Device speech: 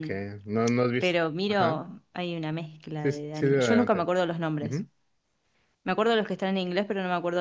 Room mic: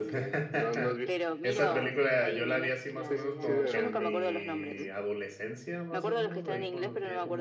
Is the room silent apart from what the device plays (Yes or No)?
No